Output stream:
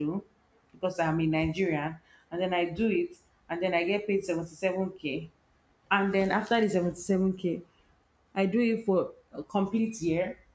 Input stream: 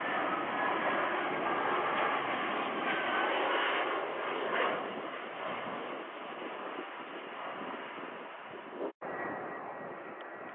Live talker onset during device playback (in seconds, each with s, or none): none